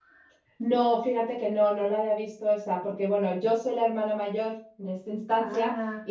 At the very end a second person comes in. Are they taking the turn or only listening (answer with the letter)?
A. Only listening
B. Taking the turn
A